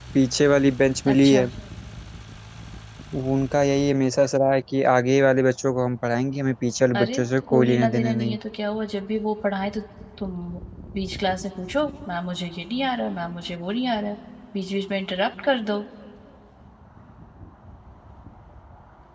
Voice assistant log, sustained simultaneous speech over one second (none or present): present